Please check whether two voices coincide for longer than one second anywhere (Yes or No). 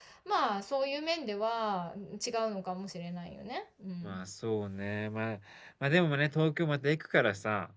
No